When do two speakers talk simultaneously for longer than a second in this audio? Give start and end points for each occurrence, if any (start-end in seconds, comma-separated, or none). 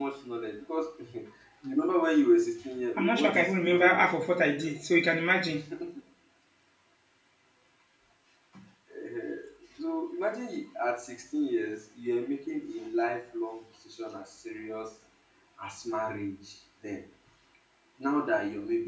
3.0-4.8